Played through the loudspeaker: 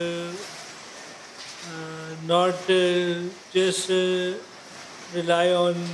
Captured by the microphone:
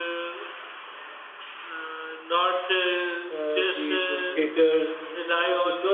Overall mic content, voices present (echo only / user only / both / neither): both